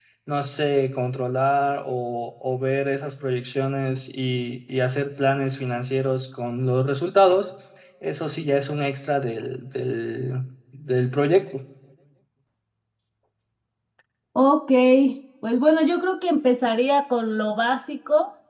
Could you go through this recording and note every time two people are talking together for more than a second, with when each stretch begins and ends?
none

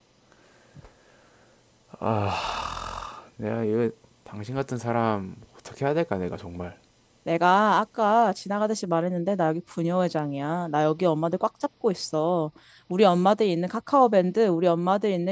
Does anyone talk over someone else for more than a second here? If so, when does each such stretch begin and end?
none

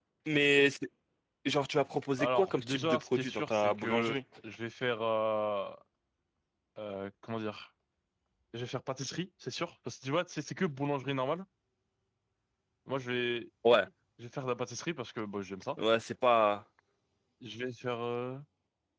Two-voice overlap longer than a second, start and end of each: 2.2-4.2

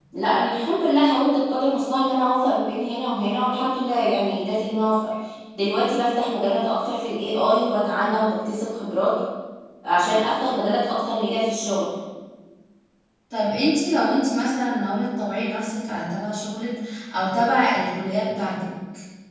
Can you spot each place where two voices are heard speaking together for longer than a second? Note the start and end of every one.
none

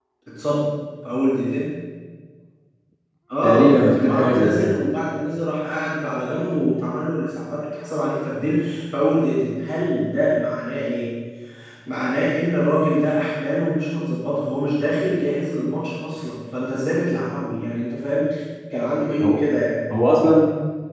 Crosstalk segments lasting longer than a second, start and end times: 3.4-4.8

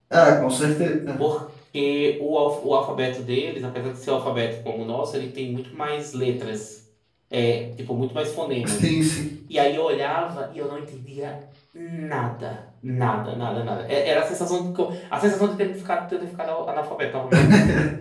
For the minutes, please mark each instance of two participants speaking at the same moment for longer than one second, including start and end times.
none

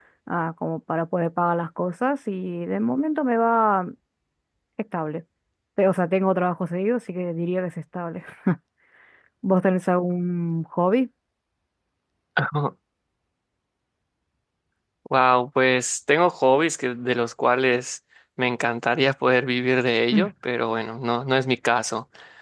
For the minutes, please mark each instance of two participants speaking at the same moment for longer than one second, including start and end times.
none

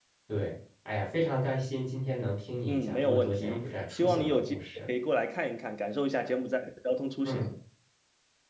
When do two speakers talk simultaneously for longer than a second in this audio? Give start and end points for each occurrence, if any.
2.7-4.9

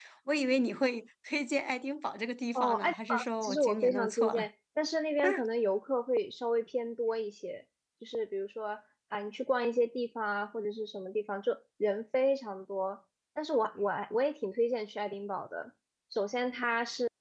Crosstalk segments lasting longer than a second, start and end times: 2.5-4.4

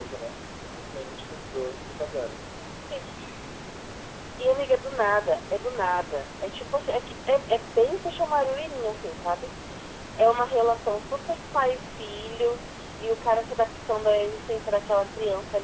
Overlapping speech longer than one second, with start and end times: none

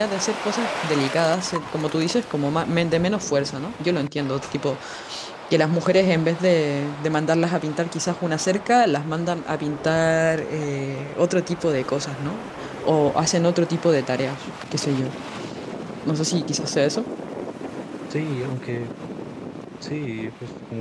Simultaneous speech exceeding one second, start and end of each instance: none

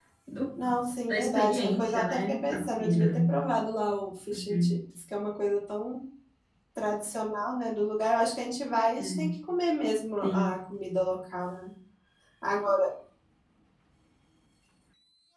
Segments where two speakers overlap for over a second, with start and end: 1.1-3.2

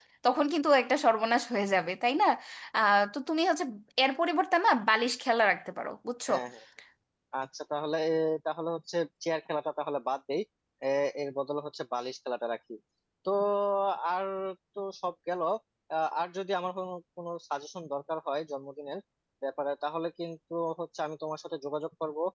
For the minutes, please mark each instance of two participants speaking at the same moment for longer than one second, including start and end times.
none

